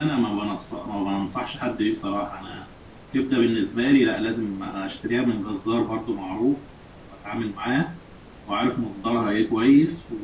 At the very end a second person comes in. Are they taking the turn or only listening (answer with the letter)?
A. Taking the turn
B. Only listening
B